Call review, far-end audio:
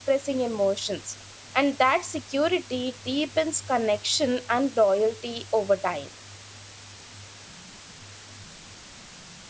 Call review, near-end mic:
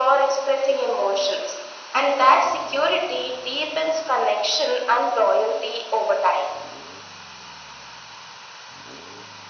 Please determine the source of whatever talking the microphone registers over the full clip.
echo only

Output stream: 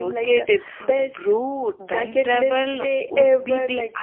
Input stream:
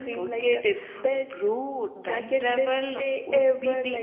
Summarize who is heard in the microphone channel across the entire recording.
echo only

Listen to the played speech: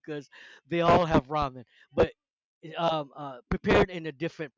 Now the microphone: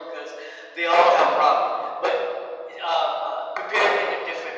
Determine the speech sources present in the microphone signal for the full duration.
echo only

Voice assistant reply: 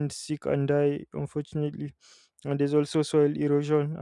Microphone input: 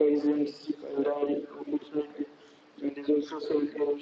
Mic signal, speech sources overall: echo only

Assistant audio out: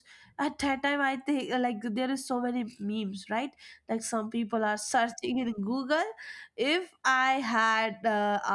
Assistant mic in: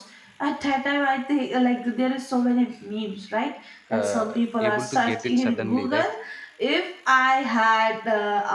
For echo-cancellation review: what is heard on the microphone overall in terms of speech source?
both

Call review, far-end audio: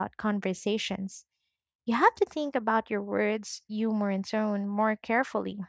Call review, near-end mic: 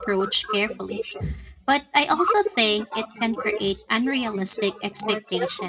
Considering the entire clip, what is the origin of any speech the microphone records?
both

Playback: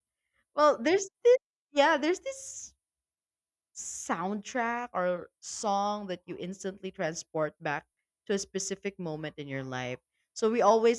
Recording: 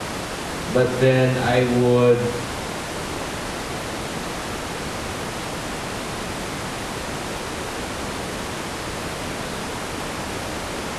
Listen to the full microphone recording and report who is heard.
user only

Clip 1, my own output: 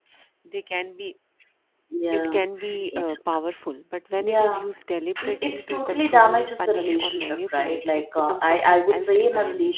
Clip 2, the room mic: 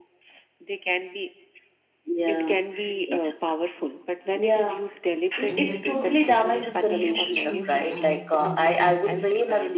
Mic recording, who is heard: both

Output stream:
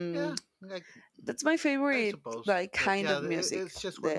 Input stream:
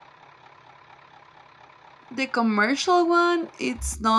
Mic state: user only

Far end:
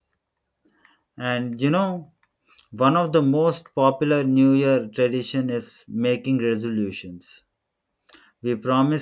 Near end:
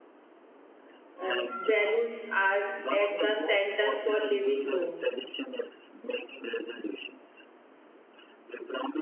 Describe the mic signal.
both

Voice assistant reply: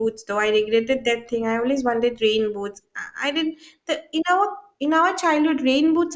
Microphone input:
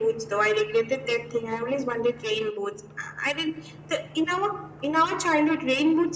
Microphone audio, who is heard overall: echo only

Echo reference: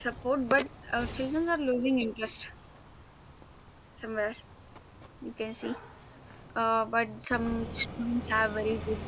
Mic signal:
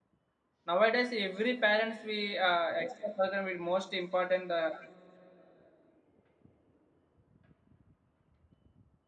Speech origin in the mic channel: user only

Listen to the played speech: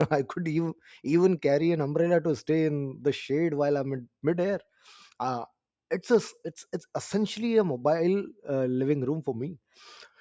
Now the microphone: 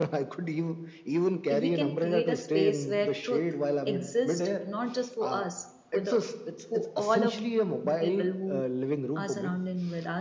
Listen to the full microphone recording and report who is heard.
both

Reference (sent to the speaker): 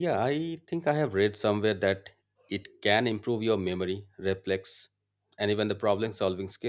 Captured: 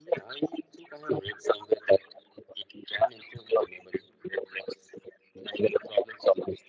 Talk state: echo only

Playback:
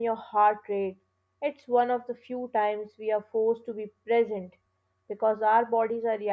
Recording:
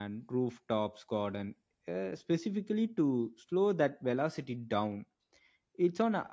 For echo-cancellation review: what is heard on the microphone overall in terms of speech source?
user only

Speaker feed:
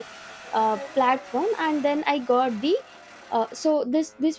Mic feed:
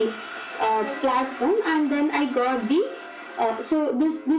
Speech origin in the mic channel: echo only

